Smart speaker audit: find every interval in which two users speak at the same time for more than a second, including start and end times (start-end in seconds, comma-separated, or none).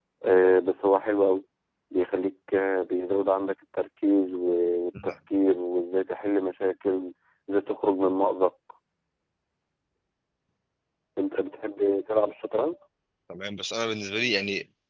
none